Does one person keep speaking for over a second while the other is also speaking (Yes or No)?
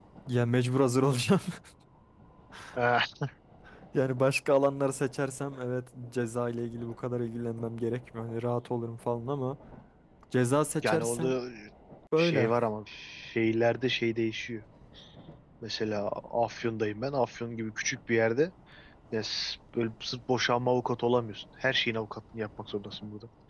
No